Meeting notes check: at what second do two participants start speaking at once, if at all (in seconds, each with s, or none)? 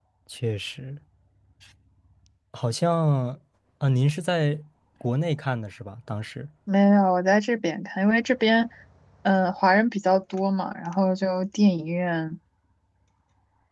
none